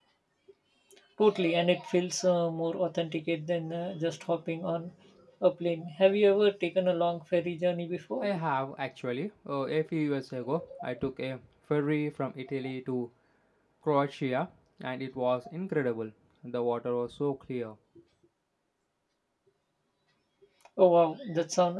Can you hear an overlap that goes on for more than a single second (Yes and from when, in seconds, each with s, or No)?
No